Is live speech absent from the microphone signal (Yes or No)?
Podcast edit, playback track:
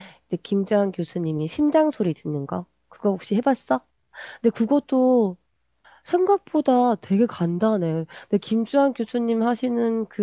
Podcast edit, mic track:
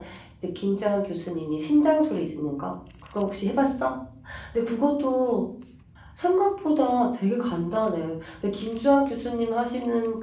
Yes